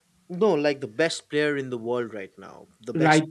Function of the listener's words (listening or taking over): taking over